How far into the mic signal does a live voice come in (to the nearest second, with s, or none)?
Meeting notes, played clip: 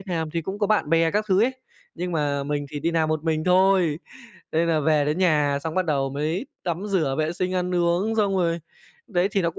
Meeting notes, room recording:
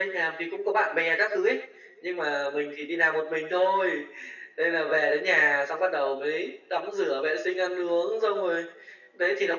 none